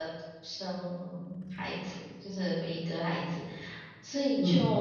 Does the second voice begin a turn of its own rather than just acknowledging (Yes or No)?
No